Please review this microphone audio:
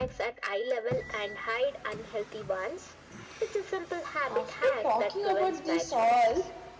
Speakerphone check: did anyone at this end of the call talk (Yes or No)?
Yes